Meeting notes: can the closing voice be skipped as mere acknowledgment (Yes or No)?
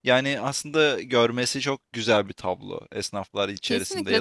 No